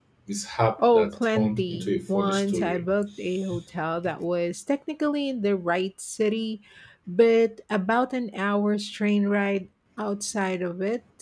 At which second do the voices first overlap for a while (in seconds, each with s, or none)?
0.9 s